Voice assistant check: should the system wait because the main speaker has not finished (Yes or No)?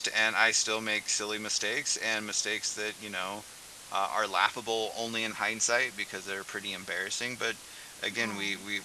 Yes